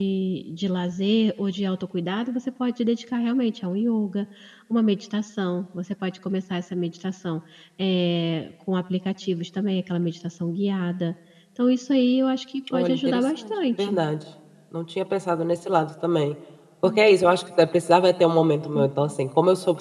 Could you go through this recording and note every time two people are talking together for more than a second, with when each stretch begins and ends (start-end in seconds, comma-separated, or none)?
12.7-14.0